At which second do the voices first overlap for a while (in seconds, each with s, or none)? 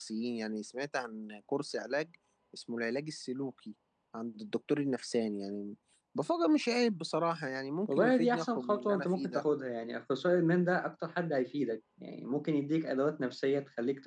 7.9 s